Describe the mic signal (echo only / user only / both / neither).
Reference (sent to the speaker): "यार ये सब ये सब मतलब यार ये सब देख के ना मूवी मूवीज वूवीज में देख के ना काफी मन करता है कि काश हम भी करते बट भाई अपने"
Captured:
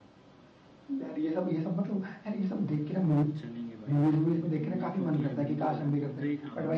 both